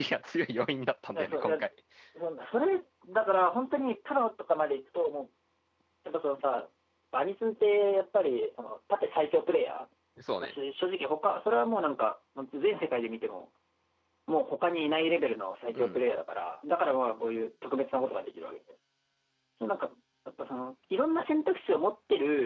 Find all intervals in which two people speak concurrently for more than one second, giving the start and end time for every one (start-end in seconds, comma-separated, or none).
none